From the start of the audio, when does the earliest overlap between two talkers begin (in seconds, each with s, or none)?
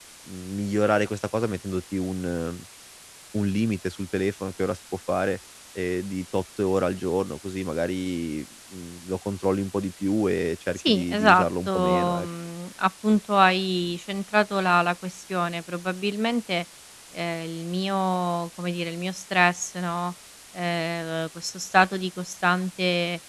10.8 s